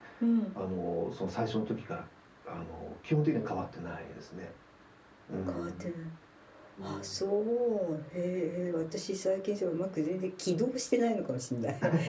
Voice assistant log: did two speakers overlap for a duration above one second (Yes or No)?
No